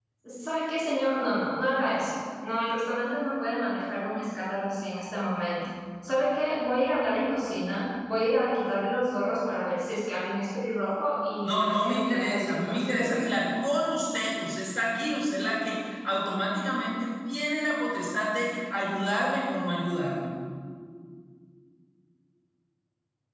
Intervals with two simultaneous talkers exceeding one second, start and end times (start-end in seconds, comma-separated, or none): 11.4-13.2